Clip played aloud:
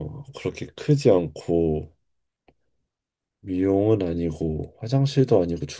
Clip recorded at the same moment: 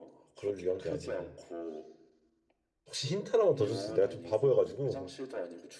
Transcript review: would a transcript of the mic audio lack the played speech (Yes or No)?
No